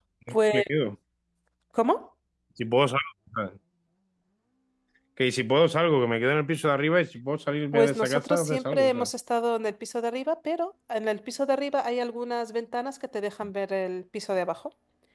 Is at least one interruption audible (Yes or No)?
Yes